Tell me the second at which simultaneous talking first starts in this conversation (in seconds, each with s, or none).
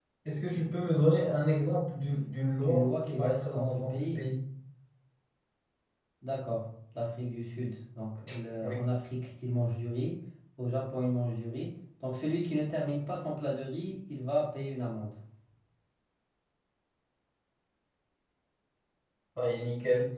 2.6 s